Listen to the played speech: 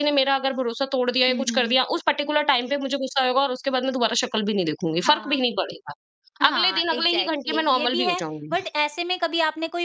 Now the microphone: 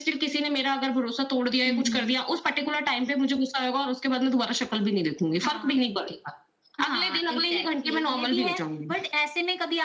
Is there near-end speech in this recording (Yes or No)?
No